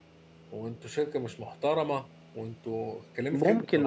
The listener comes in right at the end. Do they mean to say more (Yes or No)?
Yes